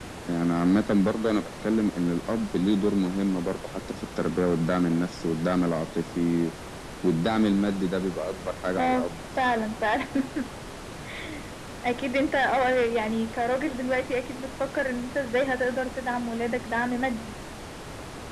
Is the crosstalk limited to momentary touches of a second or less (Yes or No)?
Yes